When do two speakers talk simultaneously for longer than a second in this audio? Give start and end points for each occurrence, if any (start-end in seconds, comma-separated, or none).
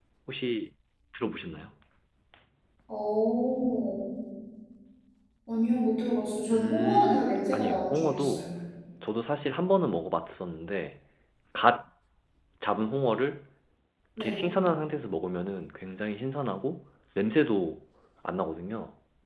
6.5-8.6